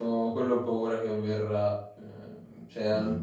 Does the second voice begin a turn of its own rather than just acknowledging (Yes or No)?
No